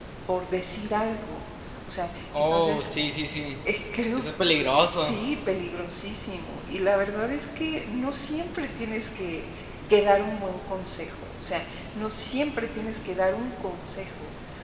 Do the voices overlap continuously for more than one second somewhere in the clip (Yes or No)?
No